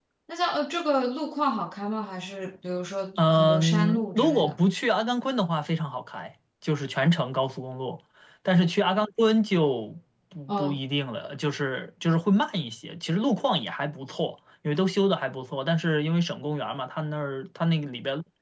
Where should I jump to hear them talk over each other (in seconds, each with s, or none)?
3.2 s